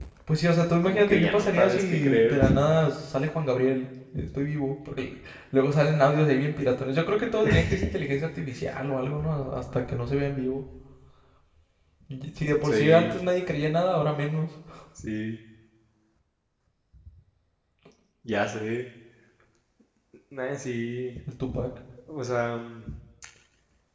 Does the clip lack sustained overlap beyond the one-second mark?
No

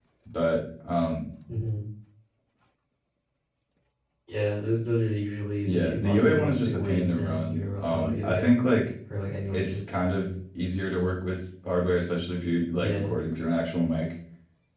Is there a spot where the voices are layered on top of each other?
Yes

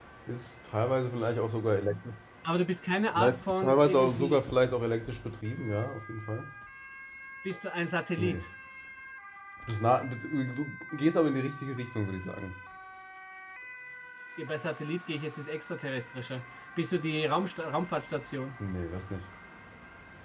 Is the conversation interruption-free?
No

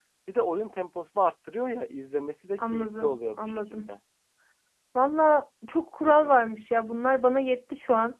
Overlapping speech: Yes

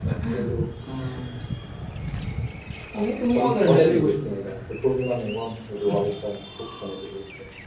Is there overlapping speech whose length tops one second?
Yes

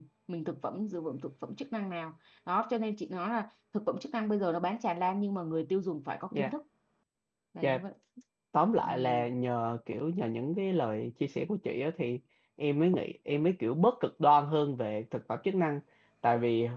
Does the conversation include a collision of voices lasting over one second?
No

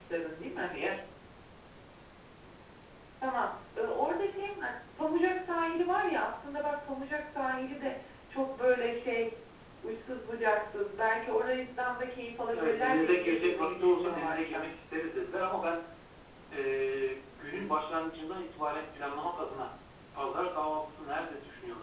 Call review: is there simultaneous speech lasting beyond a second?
Yes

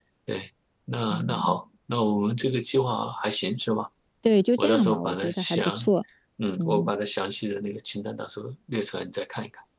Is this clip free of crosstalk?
No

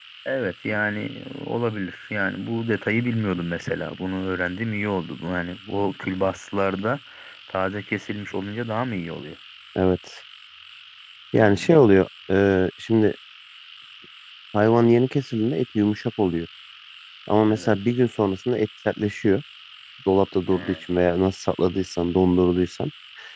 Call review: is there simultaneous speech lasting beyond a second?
No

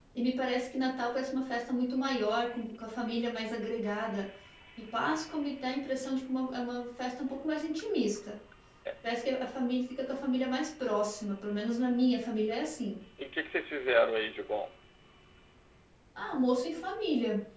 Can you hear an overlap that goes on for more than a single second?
No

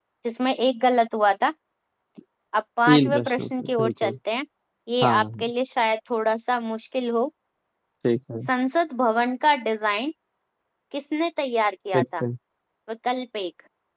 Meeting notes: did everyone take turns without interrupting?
No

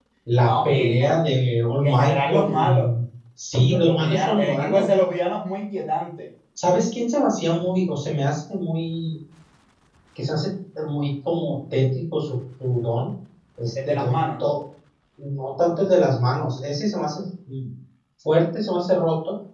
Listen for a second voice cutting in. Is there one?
Yes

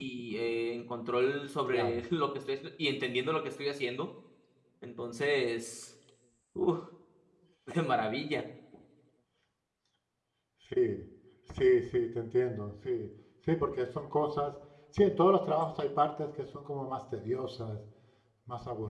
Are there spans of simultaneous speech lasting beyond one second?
No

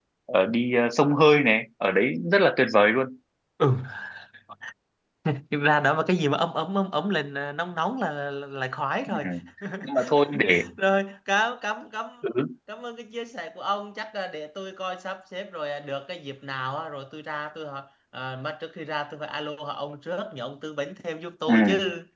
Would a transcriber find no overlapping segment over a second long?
Yes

